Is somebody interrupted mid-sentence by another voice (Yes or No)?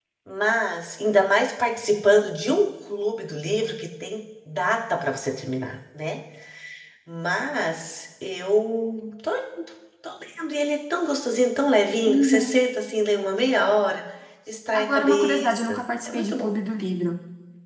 Yes